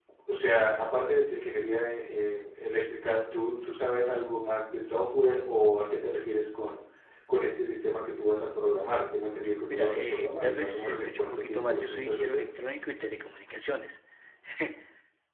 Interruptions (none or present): present